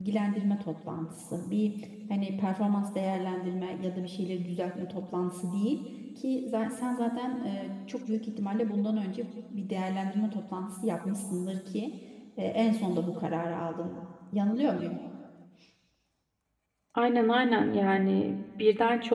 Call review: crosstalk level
none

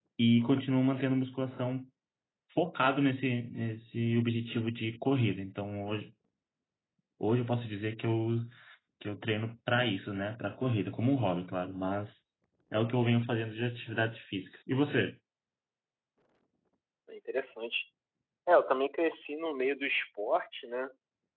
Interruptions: none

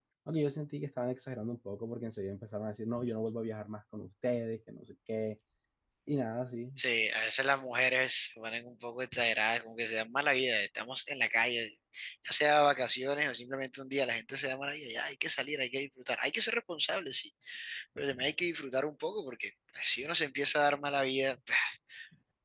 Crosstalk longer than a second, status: none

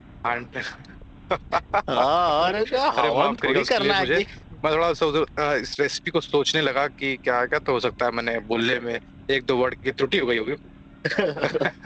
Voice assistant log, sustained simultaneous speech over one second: present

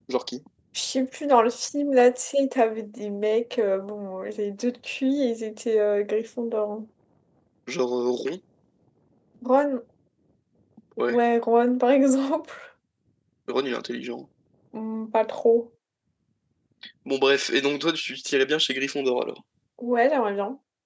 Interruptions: none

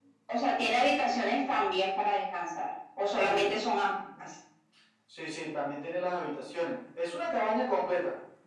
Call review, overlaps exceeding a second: none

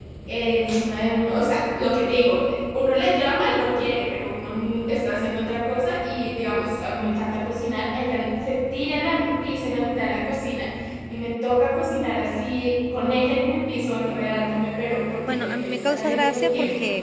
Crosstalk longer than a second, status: present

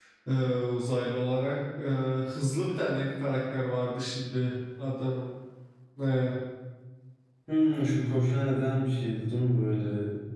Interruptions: none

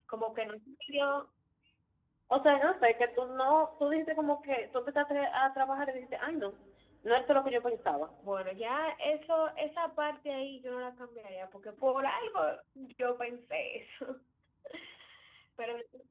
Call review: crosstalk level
none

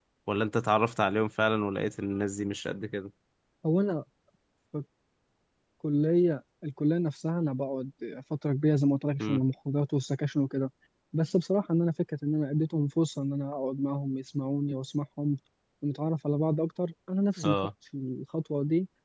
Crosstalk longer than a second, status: none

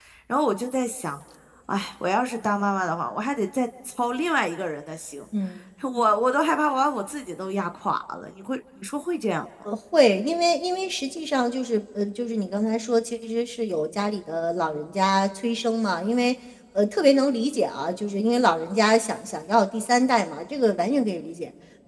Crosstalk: none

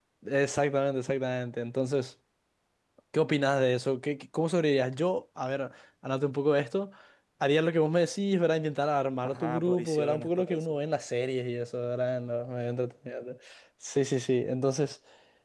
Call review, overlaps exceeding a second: present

